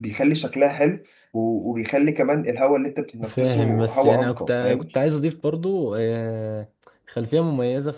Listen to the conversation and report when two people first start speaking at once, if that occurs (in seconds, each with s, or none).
3.2 s